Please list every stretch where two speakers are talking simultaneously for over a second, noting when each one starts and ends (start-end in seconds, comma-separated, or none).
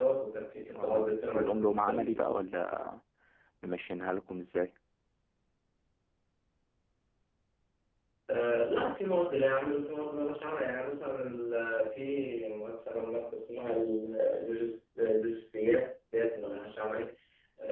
0.8-2.1